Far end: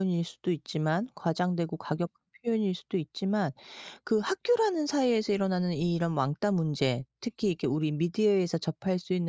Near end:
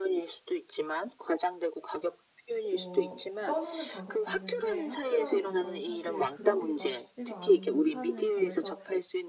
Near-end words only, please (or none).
뭐 떠나는 방법도 있는데 학교라는 공간은 사실 그러기가 쉽지가 않다는 점에서